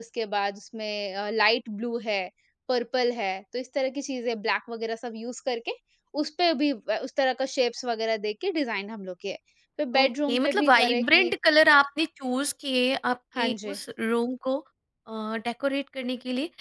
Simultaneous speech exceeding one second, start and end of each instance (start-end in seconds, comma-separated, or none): 10.0-11.3